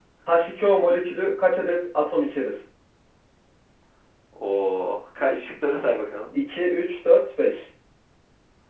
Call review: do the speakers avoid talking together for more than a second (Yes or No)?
Yes